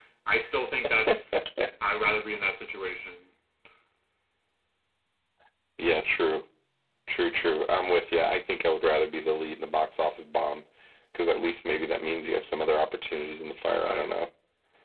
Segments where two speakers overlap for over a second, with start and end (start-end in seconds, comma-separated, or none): none